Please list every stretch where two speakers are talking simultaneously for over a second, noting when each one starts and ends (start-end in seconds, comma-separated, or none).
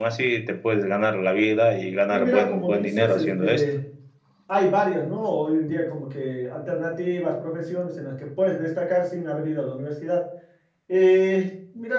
2.1-3.7